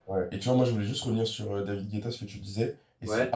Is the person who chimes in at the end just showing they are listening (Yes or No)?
Yes